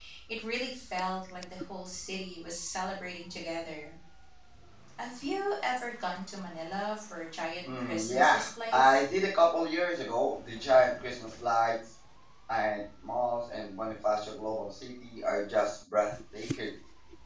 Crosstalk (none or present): present